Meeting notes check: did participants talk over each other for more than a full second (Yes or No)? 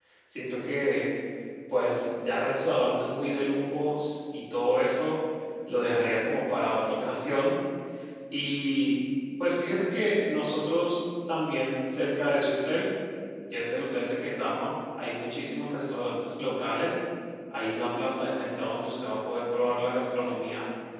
No